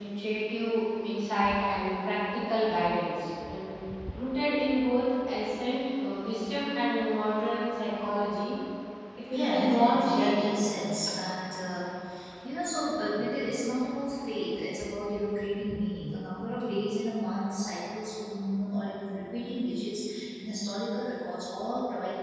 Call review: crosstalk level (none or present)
present